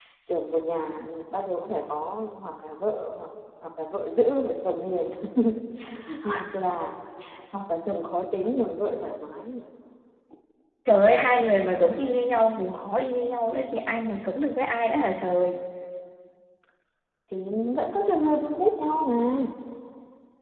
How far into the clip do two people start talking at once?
none

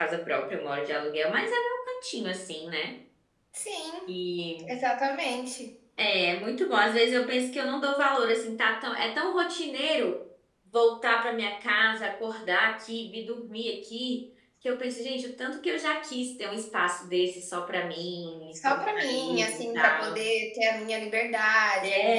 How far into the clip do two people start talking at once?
18.7 s

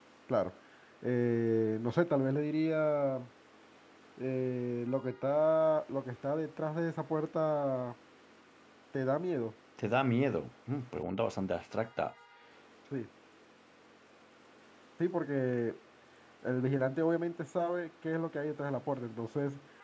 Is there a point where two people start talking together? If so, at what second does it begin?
none

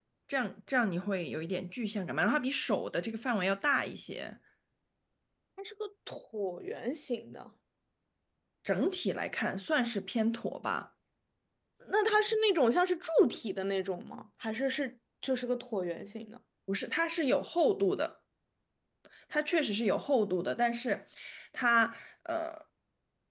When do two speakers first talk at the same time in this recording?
none

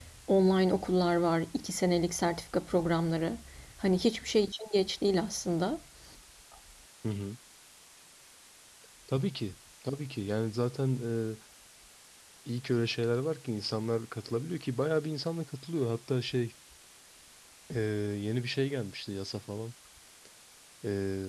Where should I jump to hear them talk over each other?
none

